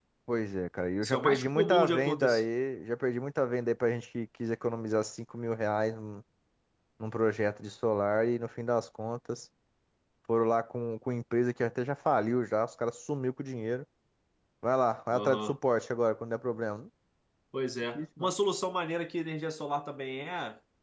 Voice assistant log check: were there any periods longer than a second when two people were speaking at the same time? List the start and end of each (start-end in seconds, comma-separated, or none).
1.0-2.4